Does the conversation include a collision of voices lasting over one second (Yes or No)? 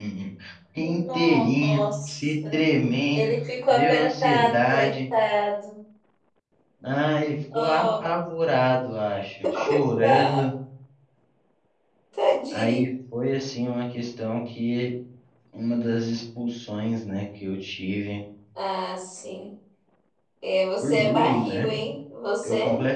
Yes